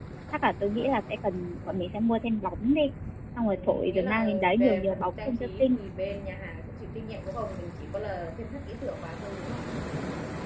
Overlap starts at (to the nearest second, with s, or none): 3 s